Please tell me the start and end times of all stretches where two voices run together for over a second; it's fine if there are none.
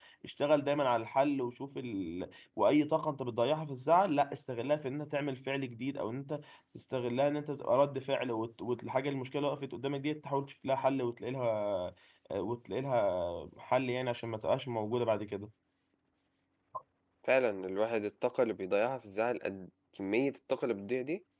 none

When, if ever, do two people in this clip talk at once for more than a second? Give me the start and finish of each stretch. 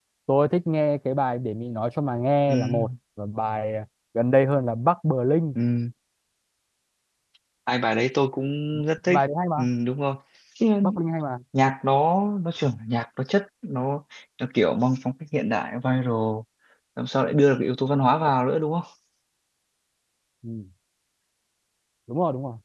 none

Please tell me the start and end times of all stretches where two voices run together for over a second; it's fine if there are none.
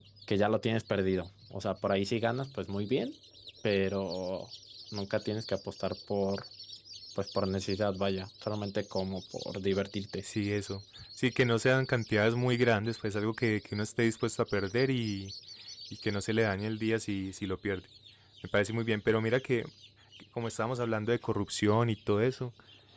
none

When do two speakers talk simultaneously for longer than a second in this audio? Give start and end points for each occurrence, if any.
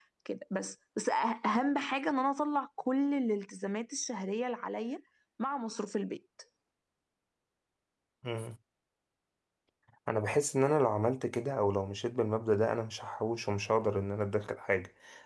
none

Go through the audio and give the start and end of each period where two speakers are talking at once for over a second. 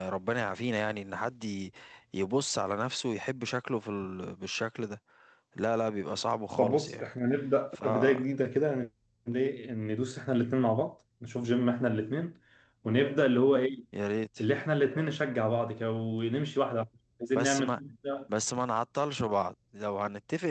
none

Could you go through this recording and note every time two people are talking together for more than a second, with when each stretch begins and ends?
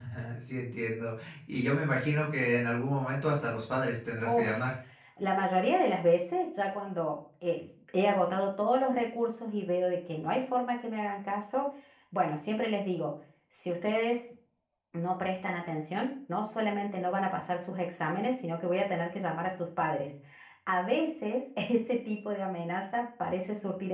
none

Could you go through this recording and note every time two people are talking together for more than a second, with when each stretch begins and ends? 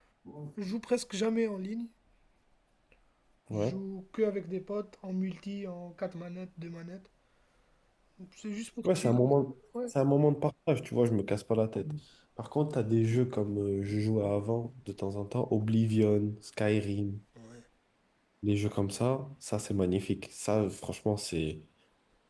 none

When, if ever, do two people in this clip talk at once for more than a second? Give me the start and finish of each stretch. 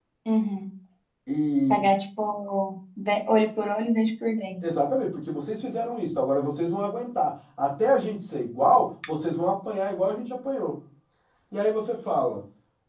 none

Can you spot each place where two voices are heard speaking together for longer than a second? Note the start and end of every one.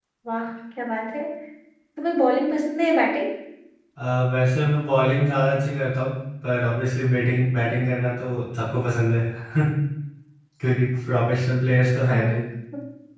none

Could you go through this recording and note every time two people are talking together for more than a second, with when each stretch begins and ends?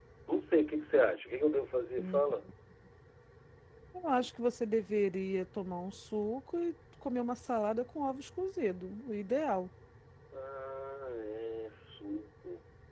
none

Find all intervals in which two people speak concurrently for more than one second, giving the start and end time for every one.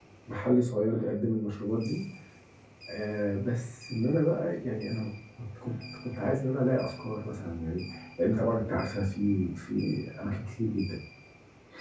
none

